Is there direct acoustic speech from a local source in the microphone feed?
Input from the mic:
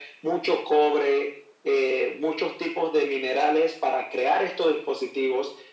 No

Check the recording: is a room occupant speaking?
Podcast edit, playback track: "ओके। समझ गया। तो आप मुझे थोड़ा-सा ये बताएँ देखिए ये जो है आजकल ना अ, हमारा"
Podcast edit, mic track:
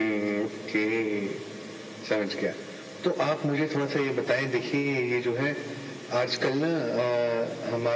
No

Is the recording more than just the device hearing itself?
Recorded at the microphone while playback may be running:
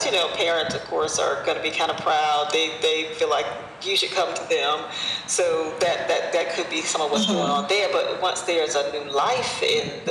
Yes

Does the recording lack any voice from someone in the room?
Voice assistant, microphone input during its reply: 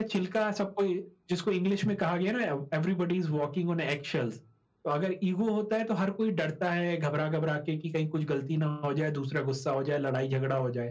Yes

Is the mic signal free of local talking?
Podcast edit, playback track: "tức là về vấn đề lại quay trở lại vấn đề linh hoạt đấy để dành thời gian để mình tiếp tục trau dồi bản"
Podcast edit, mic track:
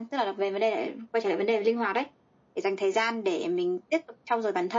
Yes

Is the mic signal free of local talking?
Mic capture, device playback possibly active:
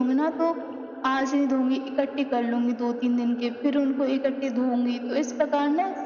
Yes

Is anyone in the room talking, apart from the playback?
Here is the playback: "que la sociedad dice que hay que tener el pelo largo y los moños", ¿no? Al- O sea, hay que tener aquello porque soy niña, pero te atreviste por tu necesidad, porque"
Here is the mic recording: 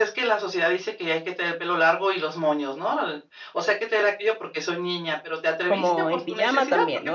Yes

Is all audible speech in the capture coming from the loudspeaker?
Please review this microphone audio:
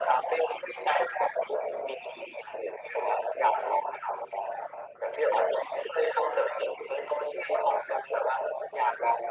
Yes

